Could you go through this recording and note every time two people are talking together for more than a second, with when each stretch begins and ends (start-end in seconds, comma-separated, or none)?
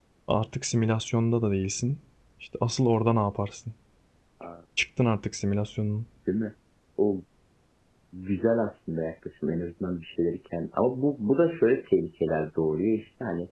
none